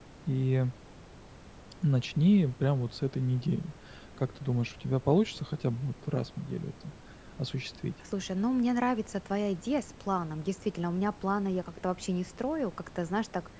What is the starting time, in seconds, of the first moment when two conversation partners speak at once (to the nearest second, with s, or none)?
none